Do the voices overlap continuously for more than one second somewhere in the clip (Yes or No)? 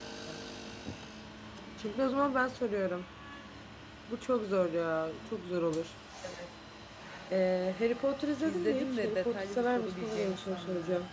Yes